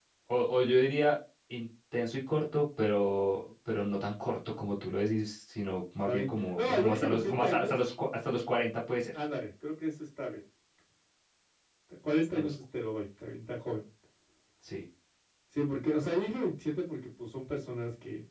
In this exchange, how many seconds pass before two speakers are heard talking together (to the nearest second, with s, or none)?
6 s